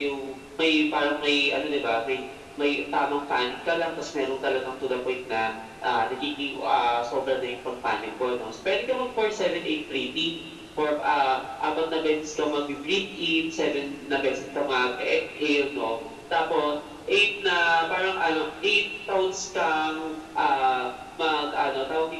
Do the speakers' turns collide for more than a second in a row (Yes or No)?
No